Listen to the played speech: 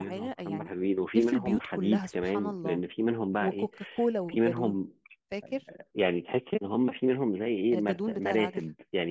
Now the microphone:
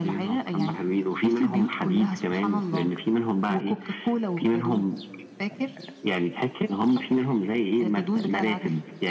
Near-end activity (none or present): none